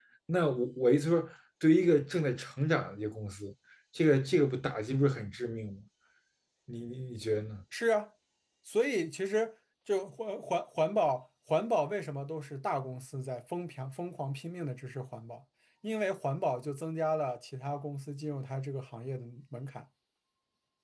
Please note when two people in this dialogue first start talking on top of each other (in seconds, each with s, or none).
none